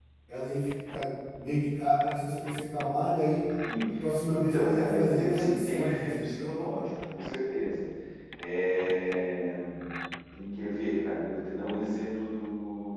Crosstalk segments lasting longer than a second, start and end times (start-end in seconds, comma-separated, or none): 4.3-6.6